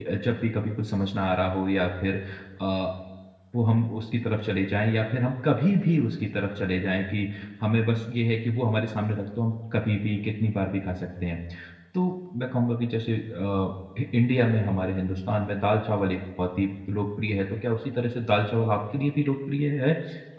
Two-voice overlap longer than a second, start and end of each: none

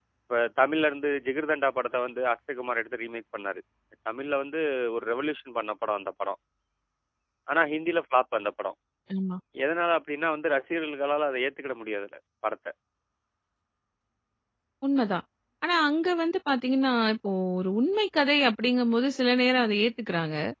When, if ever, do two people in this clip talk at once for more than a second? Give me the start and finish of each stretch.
none

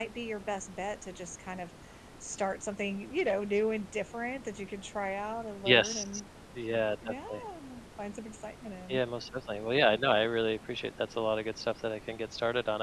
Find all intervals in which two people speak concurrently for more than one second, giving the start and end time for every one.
none

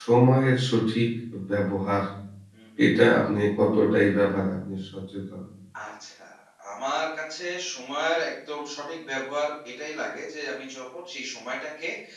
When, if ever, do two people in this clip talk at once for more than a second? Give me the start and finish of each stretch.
none

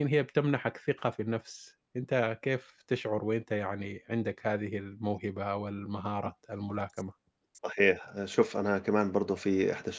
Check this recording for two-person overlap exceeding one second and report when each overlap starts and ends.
none

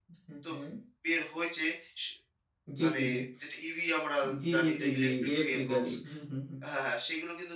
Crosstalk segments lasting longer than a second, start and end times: 4.5-5.9

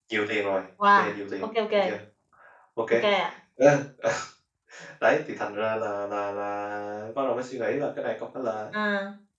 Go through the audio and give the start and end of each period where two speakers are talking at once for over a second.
none

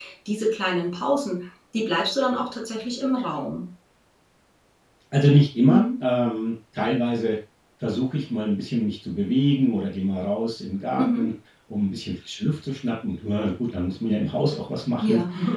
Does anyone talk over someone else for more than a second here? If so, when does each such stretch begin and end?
none

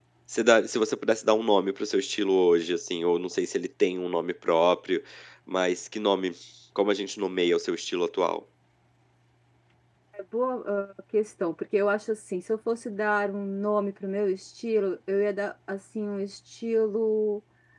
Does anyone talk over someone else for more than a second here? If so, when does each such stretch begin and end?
none

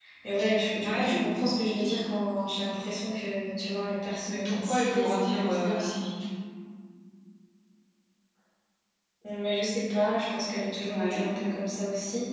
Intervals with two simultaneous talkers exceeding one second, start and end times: 4.3-6.0

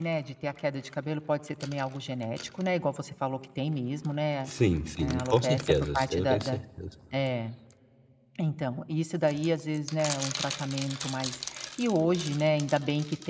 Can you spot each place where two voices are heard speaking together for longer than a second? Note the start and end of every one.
5.0-6.6

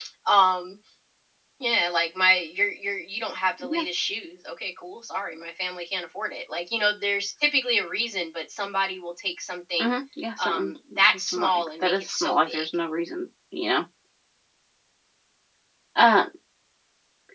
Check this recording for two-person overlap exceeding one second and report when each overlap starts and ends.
11.1-12.7

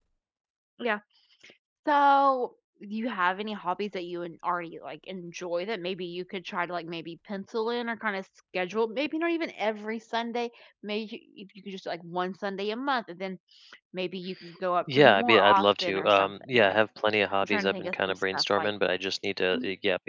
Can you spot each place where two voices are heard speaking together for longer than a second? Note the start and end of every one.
14.9-16.8, 17.4-18.7

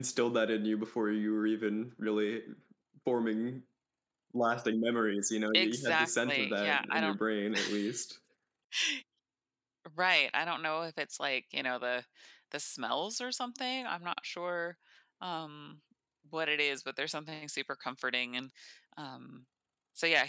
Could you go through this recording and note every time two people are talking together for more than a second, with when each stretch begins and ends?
5.5-7.1

